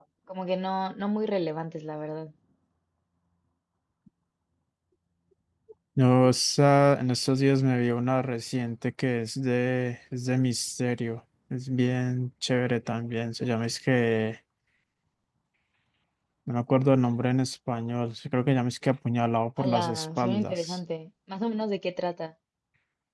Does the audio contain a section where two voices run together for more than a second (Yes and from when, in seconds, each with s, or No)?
Yes, from 19.6 s